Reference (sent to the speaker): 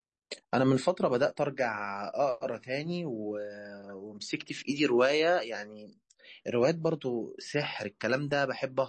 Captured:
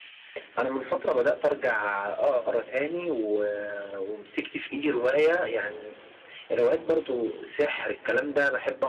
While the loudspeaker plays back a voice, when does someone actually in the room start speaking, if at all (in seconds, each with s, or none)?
none